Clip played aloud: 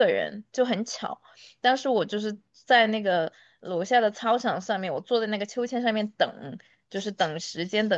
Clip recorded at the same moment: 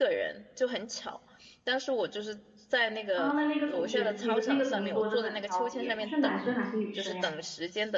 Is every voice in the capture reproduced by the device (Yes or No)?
No